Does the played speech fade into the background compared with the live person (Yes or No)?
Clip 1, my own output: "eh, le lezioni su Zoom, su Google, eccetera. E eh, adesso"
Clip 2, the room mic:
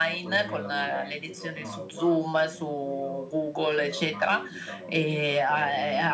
No